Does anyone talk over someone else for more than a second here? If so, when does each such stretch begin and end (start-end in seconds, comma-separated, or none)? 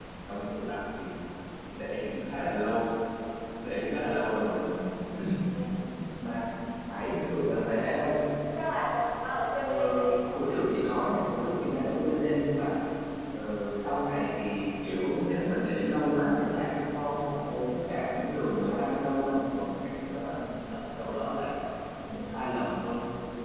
none